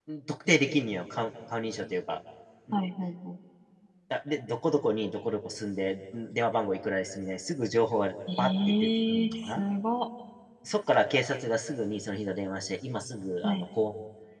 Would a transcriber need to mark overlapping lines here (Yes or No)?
Yes